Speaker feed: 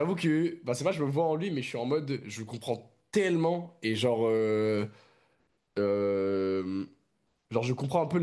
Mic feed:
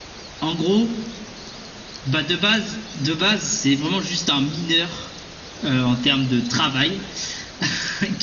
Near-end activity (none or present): present